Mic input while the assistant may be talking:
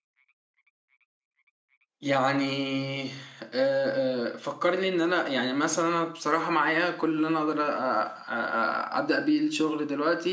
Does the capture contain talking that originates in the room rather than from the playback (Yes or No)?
Yes